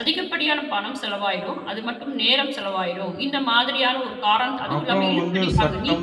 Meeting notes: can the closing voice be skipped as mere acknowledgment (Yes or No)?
No